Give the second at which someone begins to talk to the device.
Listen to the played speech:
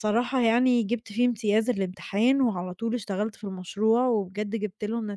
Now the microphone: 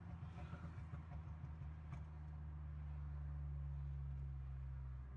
none

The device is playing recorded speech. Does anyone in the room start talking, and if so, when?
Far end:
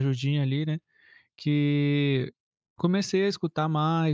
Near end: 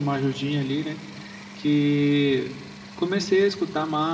none

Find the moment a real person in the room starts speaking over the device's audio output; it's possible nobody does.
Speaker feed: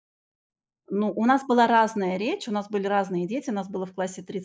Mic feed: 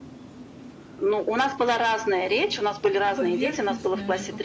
3 s

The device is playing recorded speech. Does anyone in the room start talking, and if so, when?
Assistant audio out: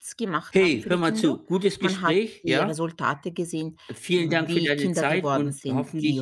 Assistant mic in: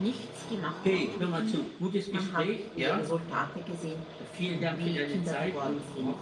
none

